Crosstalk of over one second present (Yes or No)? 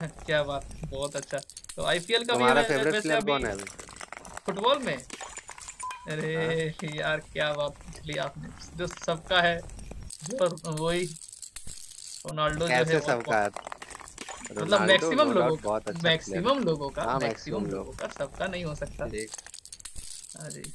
Yes